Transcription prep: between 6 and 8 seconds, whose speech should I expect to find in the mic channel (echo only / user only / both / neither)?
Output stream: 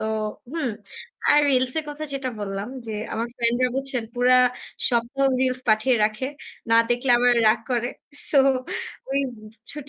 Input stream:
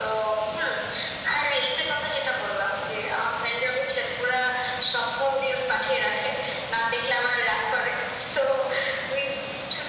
echo only